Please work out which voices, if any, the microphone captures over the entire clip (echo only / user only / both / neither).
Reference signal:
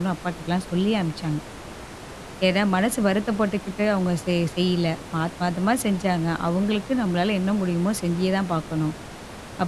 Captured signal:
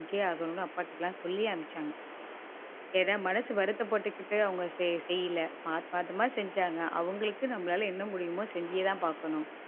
echo only